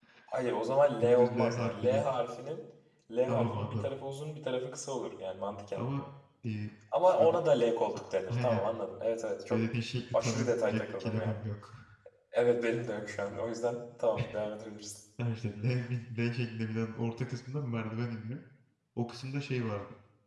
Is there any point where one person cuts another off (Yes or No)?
Yes